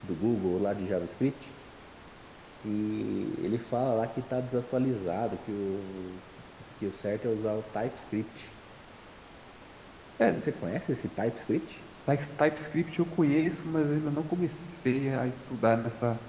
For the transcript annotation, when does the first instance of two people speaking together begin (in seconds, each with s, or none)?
none